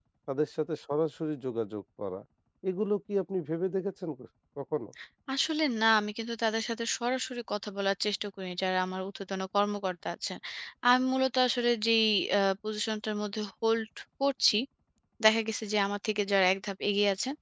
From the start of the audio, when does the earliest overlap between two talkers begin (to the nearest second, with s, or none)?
none